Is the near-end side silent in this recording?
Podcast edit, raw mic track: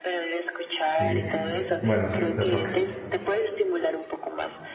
No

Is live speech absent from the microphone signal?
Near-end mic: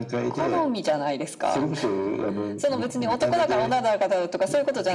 Yes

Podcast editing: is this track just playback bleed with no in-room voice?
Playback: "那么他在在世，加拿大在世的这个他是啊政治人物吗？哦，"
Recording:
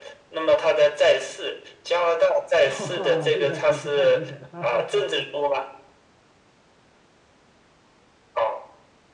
No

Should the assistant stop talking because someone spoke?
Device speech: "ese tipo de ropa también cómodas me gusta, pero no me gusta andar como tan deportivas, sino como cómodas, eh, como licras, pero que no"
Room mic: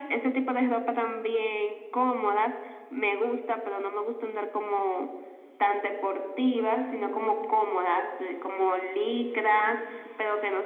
No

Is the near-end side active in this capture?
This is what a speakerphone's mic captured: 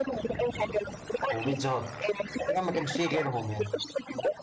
Yes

